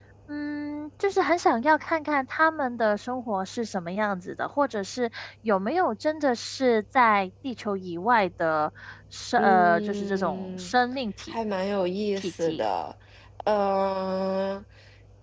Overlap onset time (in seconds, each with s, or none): 9.4 s